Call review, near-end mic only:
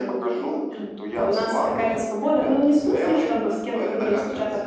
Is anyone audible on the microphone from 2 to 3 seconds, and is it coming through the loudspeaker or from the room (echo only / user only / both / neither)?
echo only